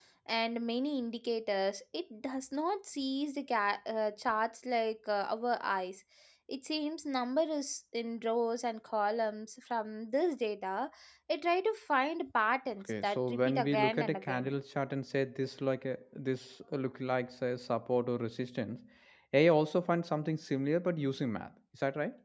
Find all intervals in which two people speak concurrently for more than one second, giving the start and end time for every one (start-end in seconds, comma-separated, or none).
12.8-14.5